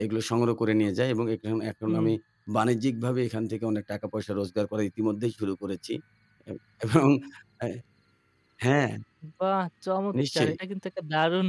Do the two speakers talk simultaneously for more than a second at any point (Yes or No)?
No